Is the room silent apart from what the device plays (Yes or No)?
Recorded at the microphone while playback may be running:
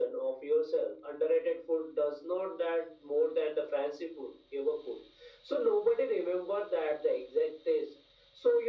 Yes